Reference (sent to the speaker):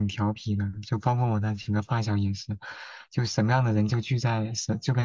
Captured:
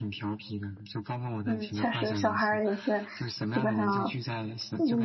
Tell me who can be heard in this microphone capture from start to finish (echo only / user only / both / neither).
both